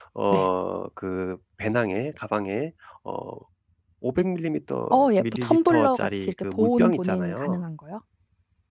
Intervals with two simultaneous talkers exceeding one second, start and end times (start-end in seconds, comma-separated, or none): 4.9-7.6